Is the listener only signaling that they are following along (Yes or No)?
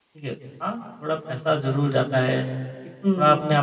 Yes